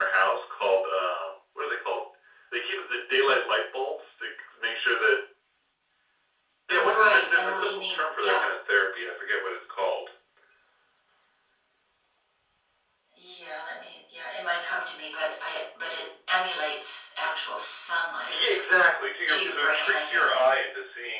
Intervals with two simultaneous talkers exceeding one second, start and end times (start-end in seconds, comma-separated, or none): 6.7-8.4, 19.3-20.5